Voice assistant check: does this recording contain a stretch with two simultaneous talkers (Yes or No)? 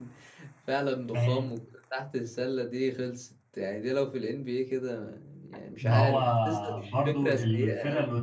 Yes